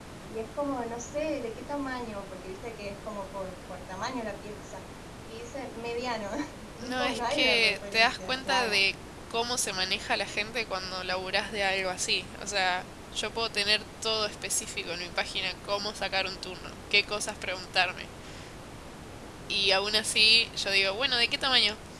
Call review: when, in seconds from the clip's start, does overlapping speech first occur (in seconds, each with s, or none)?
6.8 s